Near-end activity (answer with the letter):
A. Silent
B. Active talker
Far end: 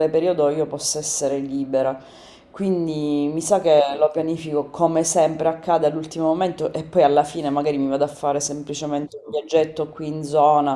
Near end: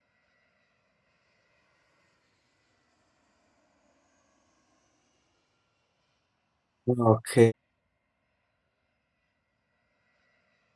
B